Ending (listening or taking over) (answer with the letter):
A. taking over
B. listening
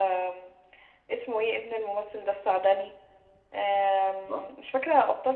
B